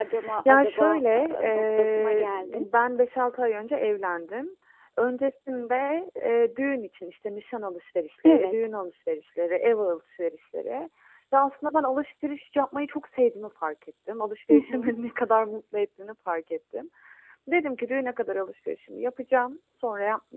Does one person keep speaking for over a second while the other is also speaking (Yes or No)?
Yes